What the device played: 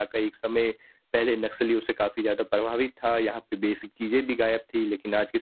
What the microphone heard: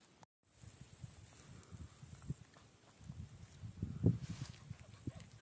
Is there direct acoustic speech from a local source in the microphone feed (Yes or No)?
No